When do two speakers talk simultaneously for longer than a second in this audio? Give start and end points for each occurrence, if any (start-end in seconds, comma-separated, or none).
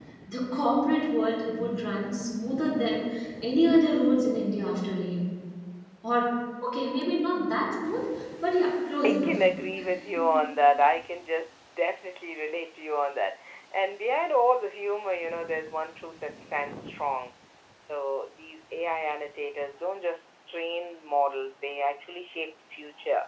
none